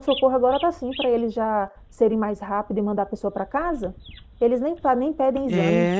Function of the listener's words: taking over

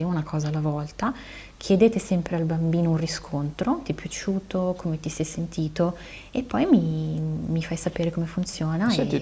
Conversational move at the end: taking over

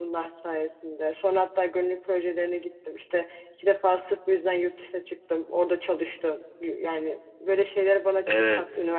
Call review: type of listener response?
taking over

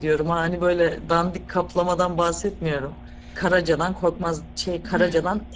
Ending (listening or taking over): listening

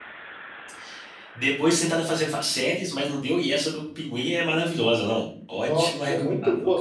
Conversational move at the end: taking over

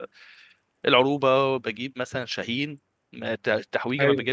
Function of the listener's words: listening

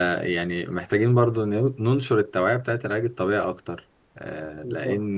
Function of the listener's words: taking over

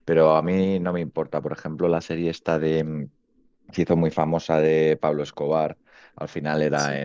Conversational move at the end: listening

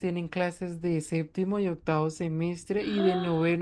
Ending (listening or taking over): listening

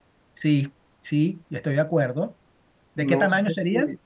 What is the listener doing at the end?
taking over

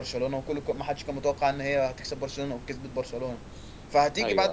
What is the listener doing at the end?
listening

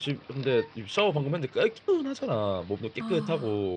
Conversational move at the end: listening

